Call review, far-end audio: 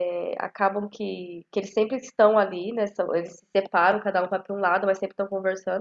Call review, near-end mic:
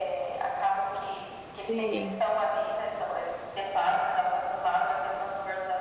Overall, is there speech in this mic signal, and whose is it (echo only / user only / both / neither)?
both